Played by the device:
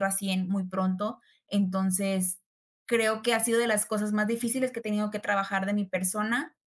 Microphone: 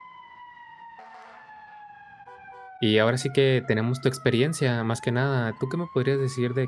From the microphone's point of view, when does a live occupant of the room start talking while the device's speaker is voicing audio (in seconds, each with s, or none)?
2.8 s